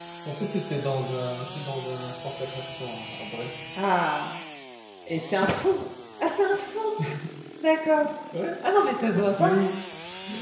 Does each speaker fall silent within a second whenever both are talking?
Yes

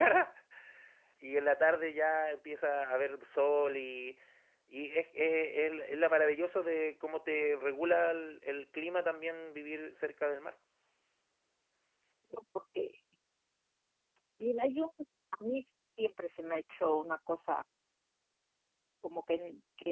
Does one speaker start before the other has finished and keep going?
No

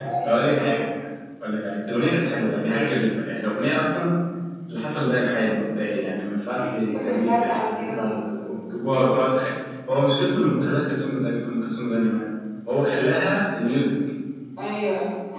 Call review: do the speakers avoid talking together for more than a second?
No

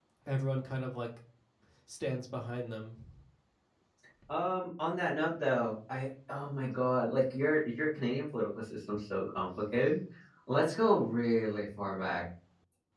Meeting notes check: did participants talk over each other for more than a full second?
No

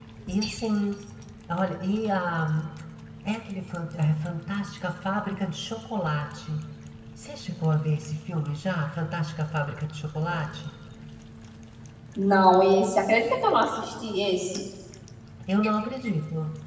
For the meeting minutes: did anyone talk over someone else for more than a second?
No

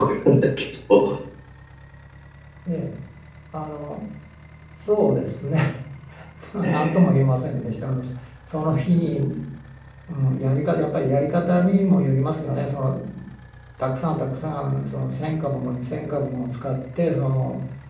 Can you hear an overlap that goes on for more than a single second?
No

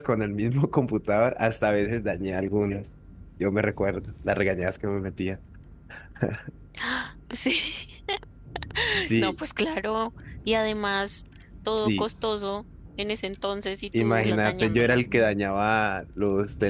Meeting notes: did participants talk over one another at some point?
Yes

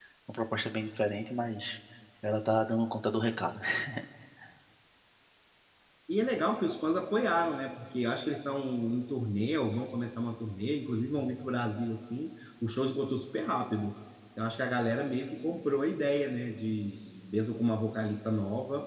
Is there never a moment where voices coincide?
Yes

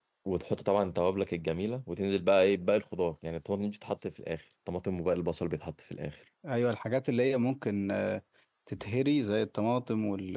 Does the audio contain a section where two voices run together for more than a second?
No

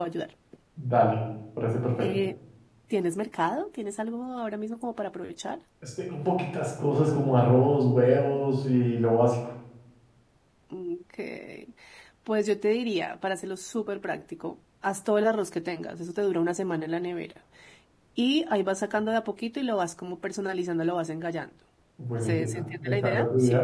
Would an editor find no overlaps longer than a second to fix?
No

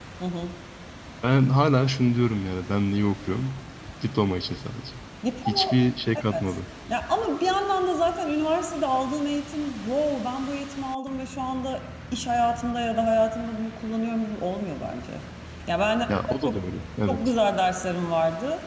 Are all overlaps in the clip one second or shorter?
Yes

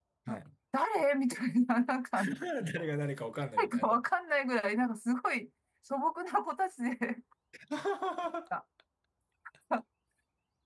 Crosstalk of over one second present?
No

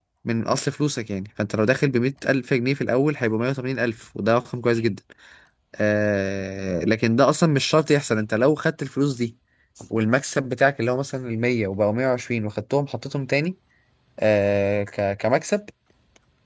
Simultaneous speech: No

